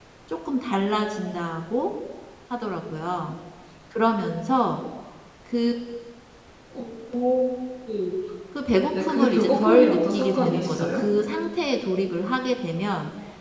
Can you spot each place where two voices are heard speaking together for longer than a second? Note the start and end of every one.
9.0-11.0

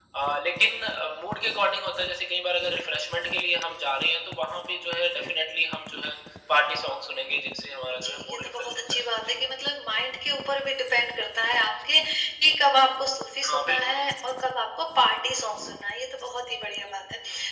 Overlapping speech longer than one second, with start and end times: 7.9-9.4

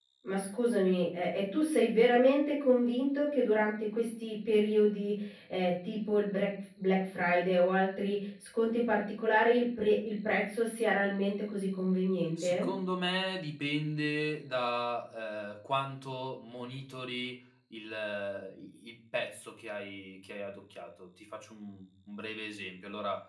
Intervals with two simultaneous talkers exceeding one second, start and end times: none

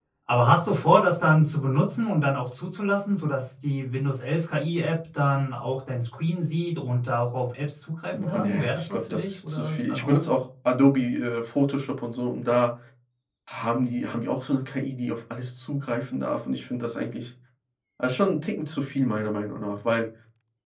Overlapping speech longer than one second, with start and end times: 8.1-10.2

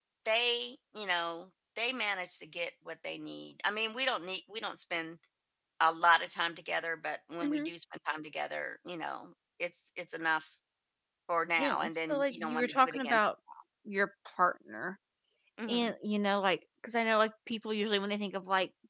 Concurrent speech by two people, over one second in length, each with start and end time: 11.6-13.2

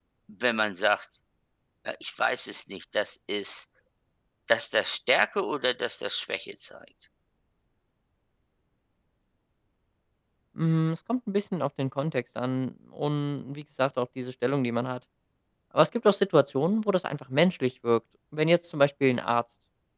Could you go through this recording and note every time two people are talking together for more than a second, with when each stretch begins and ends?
none

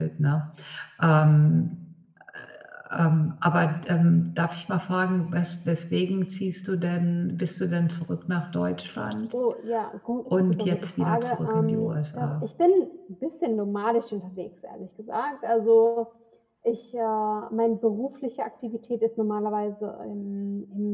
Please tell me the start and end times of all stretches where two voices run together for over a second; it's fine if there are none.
10.5-12.3

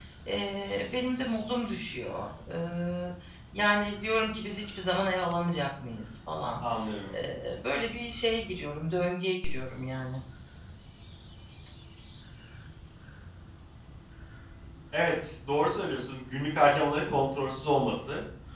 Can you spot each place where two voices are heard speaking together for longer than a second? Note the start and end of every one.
none

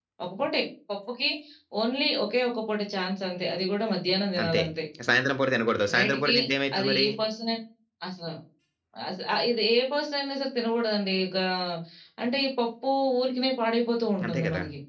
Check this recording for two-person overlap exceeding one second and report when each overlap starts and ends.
none

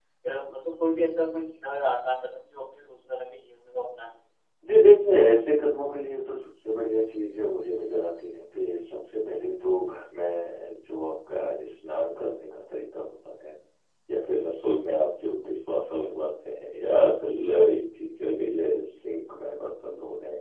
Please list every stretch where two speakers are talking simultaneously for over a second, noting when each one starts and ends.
none

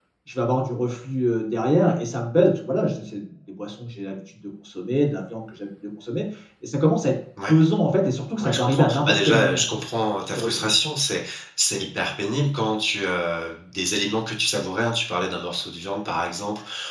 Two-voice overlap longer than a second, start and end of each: 8.4-9.6

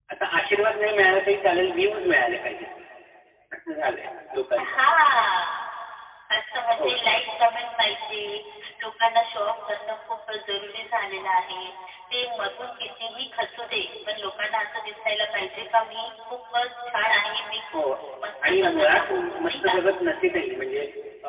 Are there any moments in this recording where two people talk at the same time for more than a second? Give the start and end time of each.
18.5-19.8

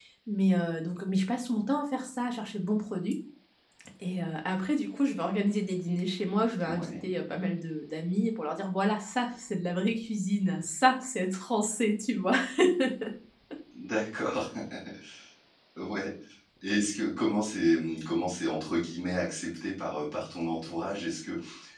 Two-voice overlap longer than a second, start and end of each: none

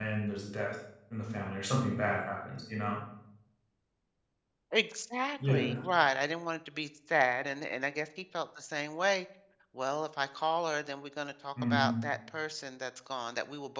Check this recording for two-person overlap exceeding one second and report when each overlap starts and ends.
none

